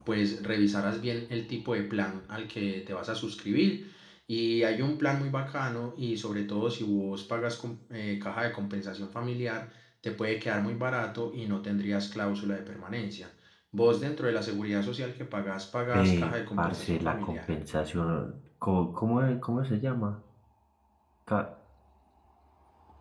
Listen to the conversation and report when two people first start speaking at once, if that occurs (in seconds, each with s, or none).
15.9 s